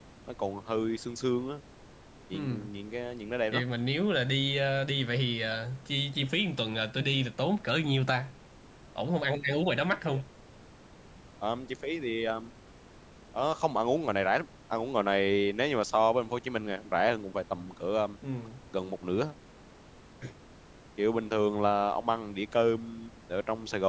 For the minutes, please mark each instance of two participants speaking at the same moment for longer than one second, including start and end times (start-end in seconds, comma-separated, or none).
none